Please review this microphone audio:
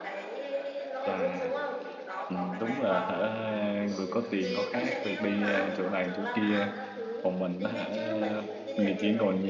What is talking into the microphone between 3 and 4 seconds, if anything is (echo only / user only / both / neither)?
both